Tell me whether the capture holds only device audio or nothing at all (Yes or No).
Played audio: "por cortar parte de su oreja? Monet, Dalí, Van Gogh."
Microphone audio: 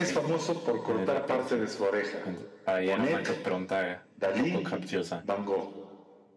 No